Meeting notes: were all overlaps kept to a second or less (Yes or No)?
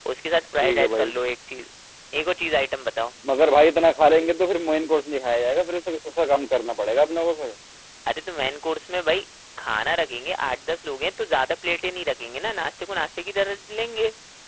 Yes